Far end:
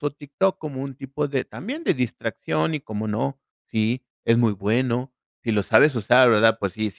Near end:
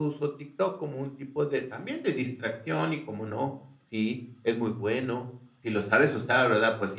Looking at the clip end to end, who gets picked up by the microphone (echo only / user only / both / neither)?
echo only